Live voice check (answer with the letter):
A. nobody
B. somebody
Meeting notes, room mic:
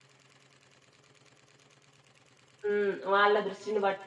B